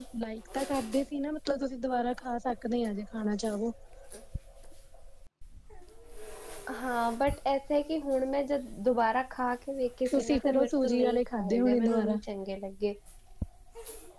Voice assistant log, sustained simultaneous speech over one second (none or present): present